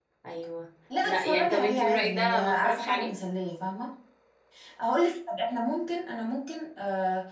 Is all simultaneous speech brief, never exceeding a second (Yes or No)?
No